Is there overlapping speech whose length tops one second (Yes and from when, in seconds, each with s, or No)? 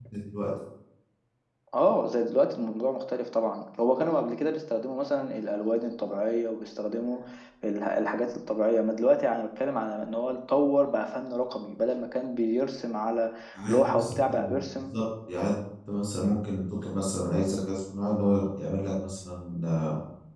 Yes, from 13.6 s